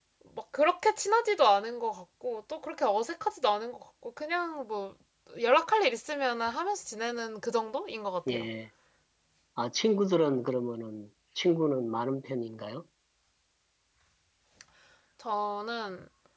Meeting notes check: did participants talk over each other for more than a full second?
No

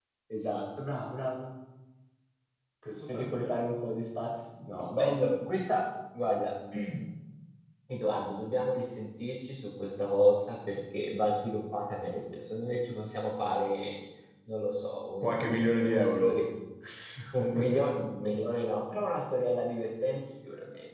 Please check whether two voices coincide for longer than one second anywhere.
Yes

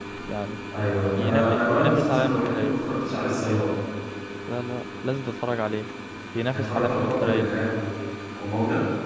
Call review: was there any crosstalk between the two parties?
Yes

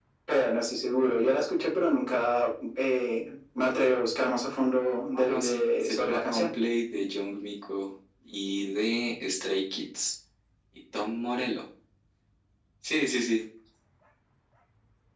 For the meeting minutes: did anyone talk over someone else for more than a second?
Yes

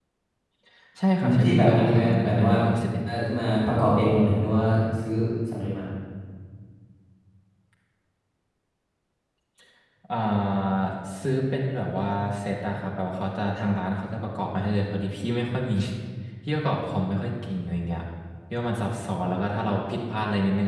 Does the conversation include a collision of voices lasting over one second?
Yes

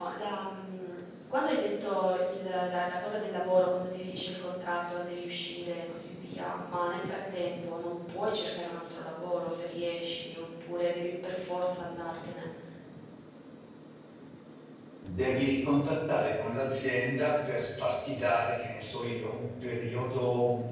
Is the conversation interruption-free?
Yes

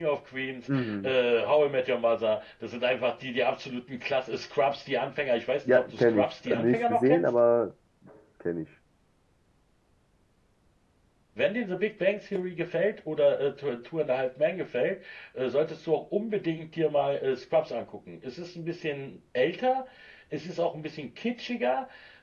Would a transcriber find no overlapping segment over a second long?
No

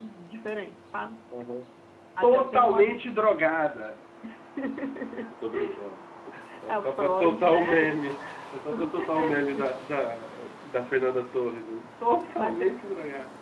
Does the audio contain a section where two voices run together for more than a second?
Yes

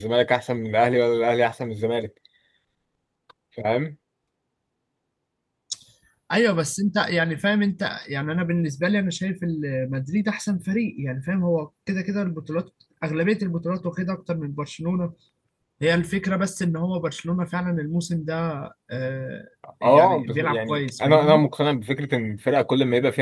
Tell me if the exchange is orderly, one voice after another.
No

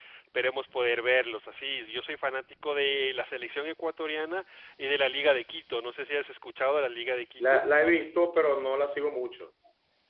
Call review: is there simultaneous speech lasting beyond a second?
No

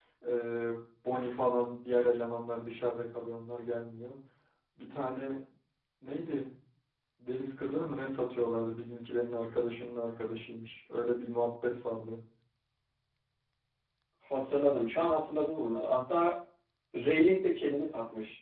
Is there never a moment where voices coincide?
Yes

